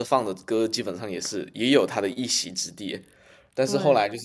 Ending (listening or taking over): listening